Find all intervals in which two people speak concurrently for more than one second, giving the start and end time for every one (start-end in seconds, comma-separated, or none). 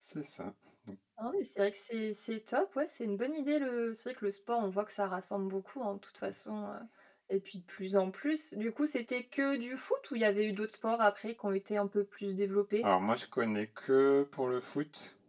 none